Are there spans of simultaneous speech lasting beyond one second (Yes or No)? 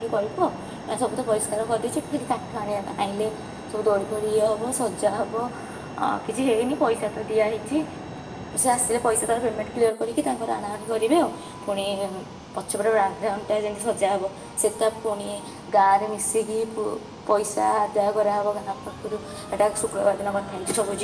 No